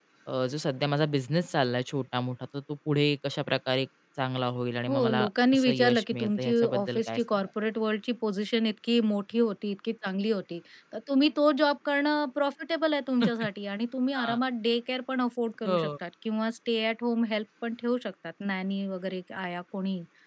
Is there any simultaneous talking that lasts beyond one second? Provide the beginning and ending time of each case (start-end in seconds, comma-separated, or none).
4.9-7.2